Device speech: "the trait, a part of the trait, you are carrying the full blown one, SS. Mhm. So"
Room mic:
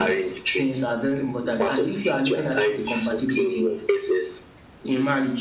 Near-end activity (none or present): present